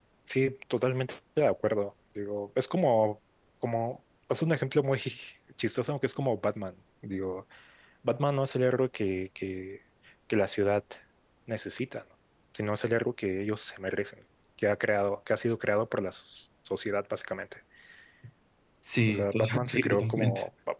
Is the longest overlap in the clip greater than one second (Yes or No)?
Yes